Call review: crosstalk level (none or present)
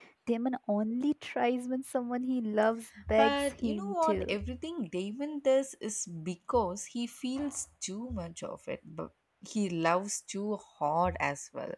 present